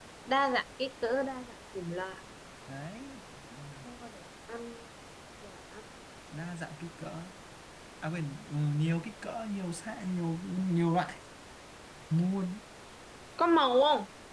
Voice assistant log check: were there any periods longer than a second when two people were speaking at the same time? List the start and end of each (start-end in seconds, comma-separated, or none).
none